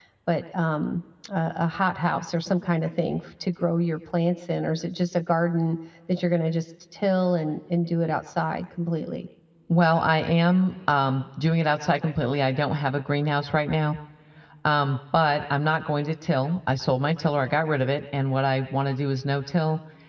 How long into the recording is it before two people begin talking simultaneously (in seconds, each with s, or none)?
none